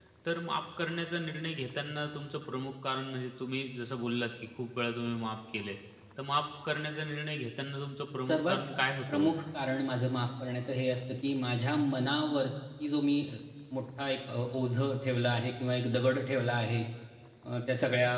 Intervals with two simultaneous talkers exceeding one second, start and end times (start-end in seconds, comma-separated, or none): none